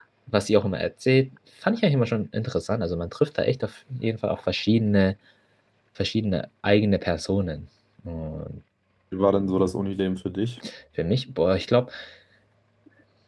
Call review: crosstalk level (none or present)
none